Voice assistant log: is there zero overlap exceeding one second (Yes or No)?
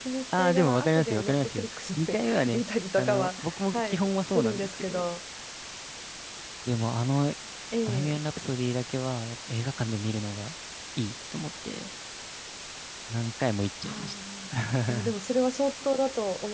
No